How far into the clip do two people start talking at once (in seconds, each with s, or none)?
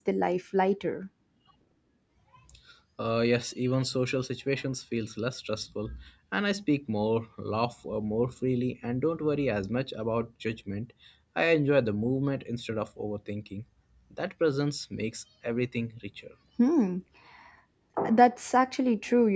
none